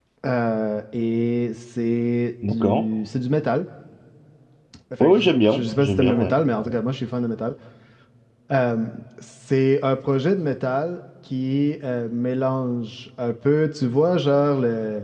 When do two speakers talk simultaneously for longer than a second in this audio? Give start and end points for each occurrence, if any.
5.0-6.3

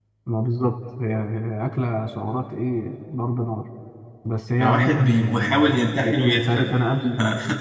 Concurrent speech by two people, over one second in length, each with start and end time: 4.6-6.8

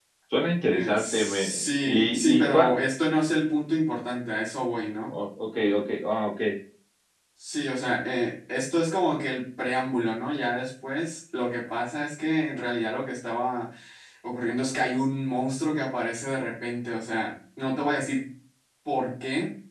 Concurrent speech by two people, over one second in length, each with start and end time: 0.7-2.7

